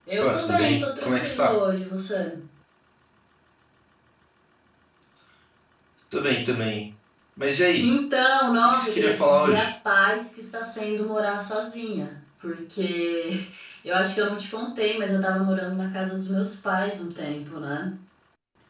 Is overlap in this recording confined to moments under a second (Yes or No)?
No